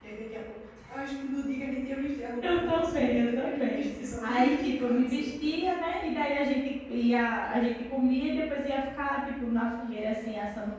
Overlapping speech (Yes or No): Yes